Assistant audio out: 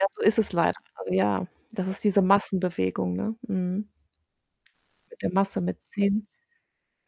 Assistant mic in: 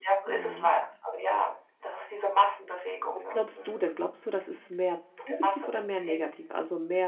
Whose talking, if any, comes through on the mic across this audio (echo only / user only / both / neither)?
both